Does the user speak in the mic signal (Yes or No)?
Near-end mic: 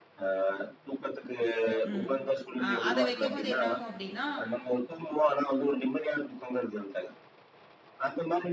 Yes